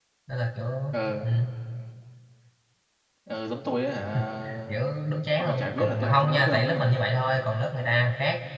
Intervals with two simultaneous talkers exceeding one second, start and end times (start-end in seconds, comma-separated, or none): 5.4-7.0